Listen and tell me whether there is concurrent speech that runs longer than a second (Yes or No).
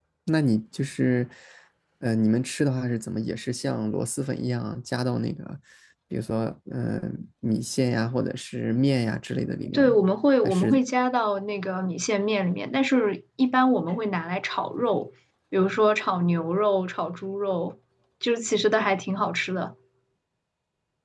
No